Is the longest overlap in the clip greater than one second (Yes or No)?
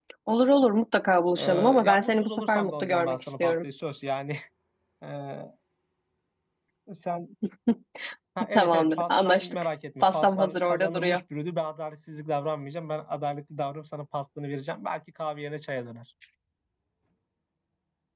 Yes